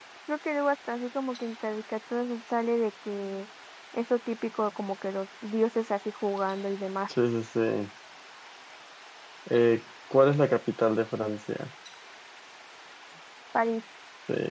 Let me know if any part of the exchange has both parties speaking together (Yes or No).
No